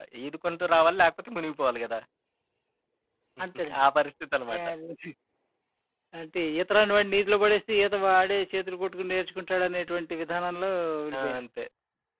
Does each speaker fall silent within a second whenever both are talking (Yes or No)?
Yes